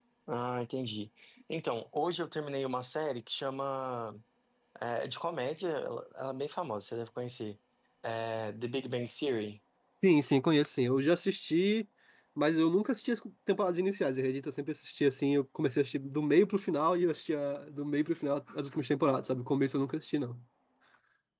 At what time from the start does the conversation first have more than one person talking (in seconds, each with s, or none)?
none